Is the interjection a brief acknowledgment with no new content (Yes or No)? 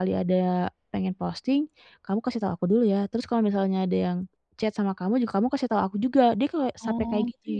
No